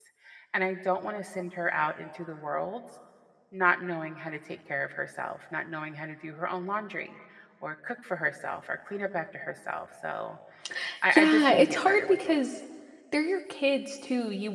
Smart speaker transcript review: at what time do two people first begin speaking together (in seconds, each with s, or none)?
11.1 s